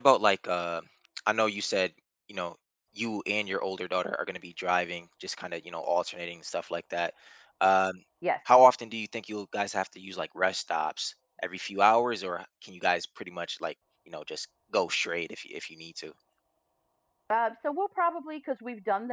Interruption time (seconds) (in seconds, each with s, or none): none